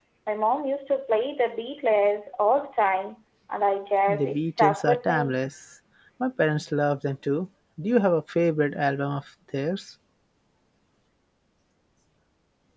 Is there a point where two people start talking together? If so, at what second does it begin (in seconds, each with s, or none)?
4.1 s